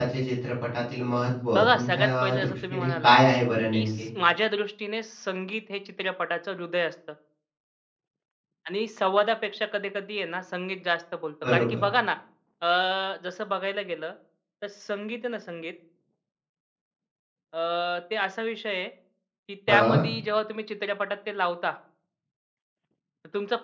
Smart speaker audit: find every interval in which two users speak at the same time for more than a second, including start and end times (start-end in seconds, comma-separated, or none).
1.6-3.1